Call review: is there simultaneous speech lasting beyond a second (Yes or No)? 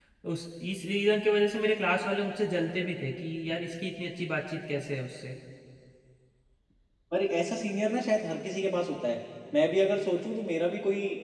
No